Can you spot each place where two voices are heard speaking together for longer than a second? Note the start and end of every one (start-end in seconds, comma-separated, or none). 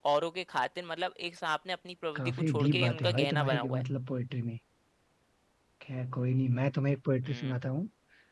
2.2-3.8